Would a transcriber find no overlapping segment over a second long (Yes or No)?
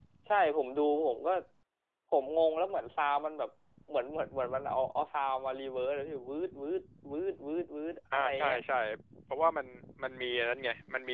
Yes